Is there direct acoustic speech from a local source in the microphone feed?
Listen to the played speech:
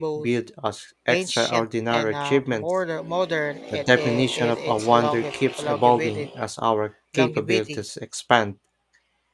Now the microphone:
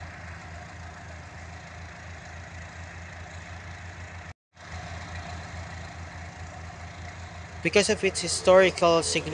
Yes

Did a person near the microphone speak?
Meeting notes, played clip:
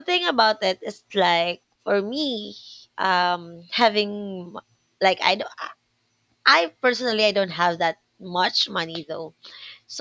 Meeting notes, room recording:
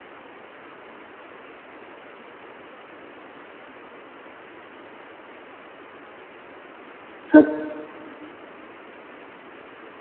Yes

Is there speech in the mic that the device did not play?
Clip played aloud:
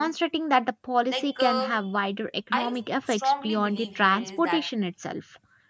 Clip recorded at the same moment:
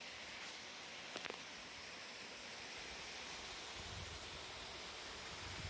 No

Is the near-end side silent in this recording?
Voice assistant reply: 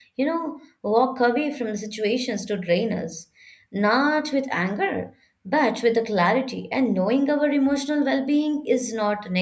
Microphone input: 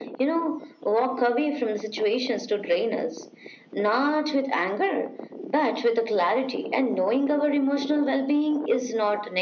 Yes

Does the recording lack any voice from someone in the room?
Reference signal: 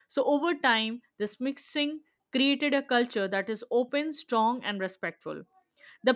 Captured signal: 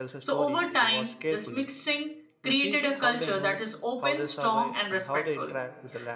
No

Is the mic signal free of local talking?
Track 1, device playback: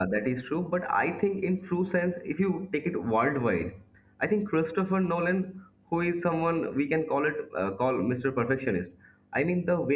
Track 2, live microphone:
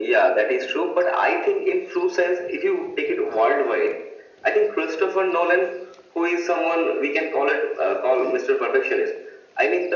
Yes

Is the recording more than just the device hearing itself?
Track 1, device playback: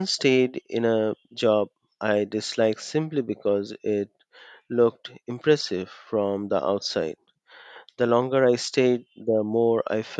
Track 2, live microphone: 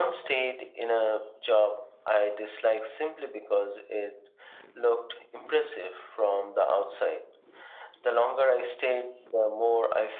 No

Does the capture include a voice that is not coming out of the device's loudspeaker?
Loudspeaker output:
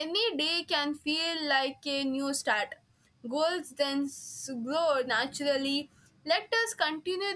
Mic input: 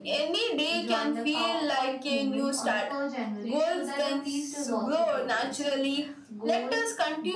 Yes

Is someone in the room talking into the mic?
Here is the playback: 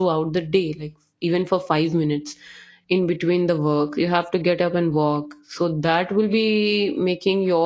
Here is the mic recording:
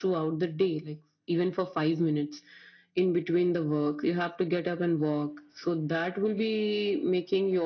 No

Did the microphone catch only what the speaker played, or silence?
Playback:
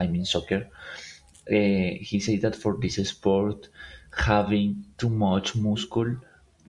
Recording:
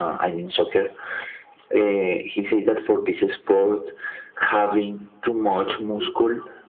Yes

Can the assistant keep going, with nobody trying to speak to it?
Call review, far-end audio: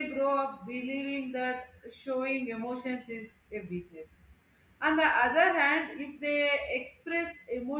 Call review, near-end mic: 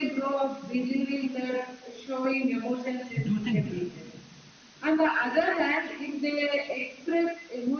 No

